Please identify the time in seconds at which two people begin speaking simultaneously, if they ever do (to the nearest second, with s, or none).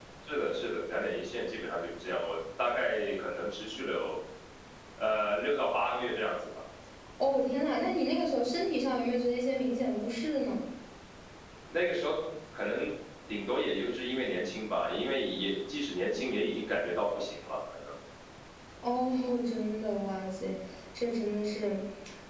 none